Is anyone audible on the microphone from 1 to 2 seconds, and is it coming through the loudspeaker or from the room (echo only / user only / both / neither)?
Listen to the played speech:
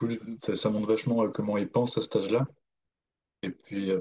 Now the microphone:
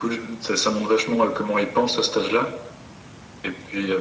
echo only